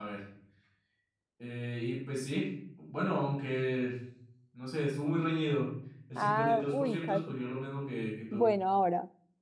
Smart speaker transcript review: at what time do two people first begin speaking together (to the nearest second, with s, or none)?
6 s